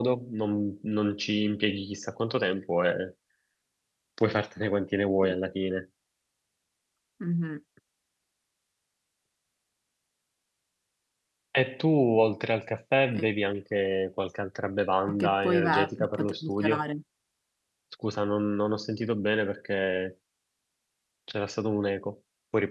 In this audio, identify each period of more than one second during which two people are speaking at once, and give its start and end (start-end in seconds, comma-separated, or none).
15.1-16.8